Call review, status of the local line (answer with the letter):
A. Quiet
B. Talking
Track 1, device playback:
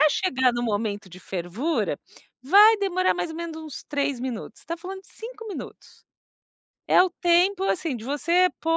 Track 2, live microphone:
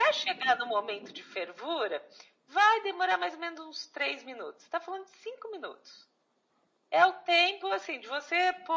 A